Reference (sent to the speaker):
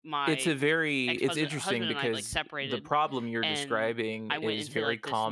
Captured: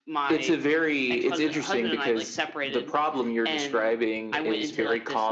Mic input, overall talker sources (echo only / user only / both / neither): echo only